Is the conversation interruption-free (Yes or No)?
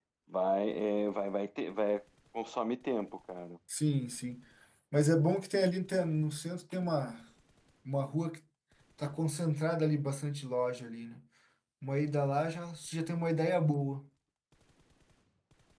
Yes